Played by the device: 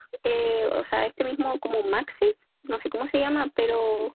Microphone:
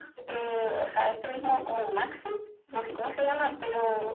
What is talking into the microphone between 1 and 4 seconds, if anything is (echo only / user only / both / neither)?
echo only